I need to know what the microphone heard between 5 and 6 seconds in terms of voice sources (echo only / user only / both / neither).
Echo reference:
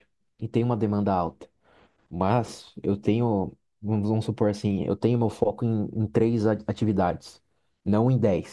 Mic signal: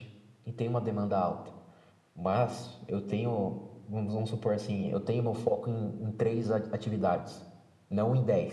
echo only